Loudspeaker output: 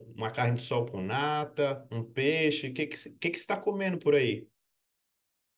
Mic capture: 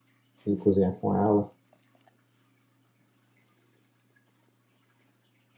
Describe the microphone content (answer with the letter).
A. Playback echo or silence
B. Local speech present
B